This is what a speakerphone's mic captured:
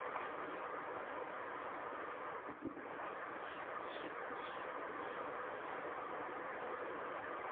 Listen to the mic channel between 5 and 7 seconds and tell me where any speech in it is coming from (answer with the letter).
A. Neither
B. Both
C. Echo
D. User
A